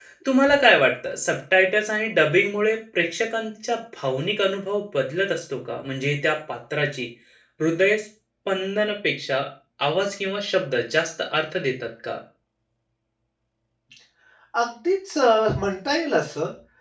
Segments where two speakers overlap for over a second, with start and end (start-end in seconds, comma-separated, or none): none